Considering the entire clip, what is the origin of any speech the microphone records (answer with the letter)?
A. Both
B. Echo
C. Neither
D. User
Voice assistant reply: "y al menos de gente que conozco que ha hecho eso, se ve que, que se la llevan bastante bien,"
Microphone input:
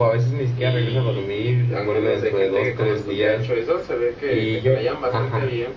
A